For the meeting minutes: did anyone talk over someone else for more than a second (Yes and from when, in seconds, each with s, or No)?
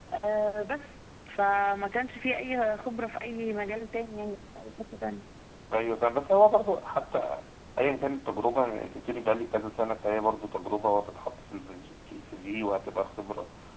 No